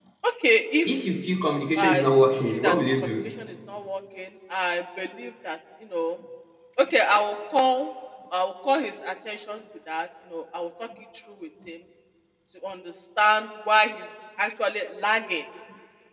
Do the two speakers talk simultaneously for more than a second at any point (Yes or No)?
Yes